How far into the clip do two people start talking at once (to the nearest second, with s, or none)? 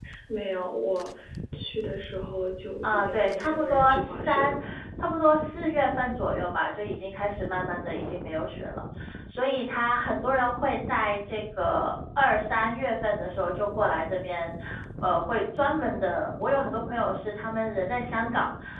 3 s